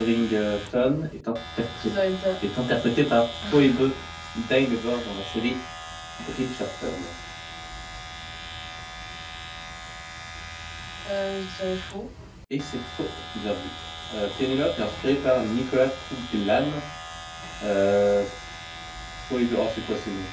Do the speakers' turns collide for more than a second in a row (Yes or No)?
No